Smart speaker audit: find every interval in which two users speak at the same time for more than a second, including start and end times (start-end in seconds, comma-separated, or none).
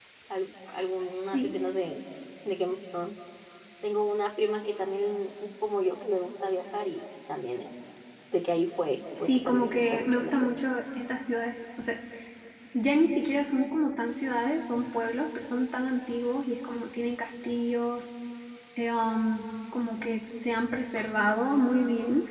9.2-10.5